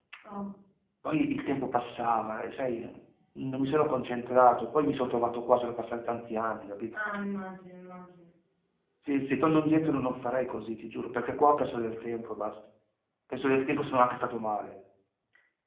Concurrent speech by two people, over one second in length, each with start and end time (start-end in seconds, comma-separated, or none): none